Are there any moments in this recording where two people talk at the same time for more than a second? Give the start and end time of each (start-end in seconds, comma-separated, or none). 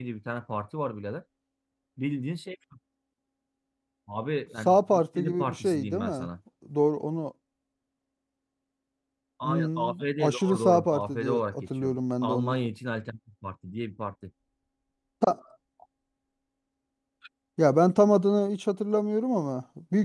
4.6-6.3, 9.4-12.7